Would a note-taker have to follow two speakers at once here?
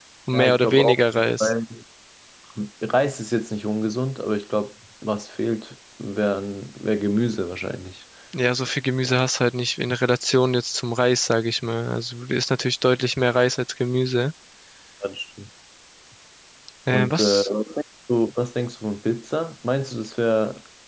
Yes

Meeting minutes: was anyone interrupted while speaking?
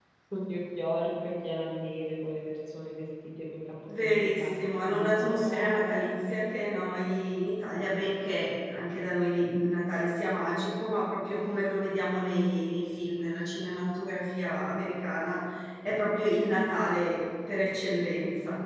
Yes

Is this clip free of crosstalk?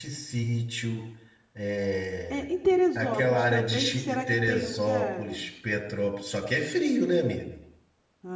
No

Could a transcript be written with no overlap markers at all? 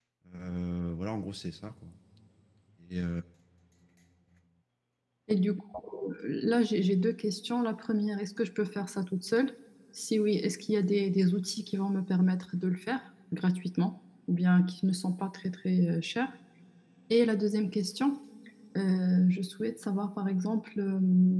Yes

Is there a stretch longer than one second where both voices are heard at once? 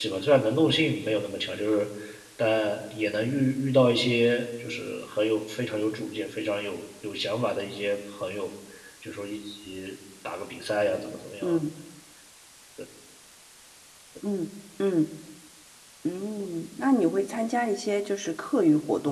No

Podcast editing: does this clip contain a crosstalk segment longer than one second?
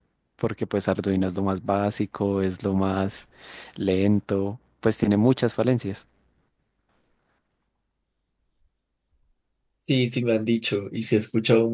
No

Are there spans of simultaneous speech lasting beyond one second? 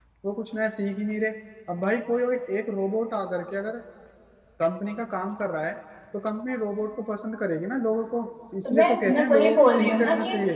Yes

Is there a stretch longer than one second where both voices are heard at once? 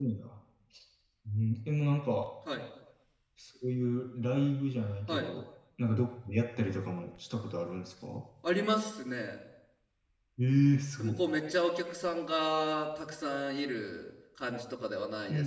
No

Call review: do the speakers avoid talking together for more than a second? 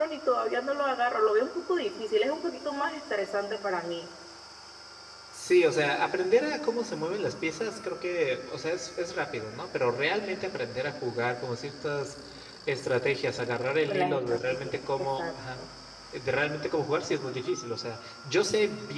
No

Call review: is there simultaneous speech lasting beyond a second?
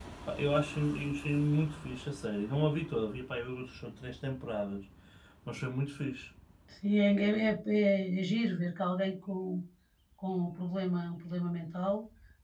No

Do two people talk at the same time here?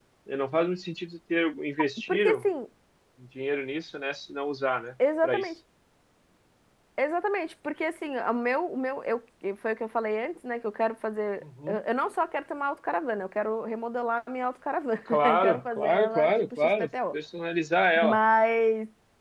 Yes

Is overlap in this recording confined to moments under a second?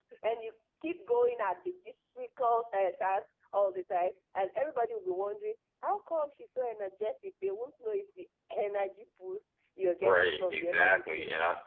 No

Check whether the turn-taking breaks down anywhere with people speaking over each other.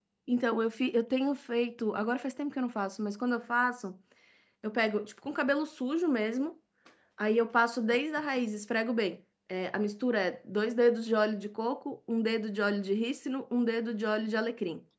No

